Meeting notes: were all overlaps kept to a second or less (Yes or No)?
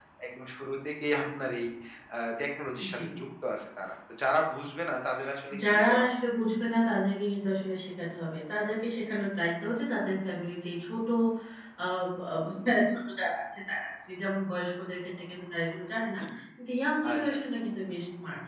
Yes